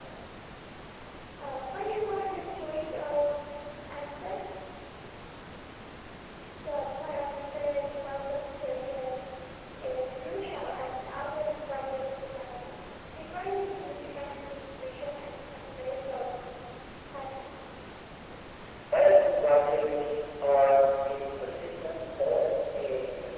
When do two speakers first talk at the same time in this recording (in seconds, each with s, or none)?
none